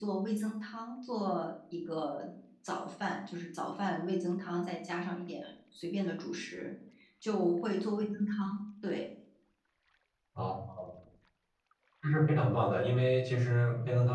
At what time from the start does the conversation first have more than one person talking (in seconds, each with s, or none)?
none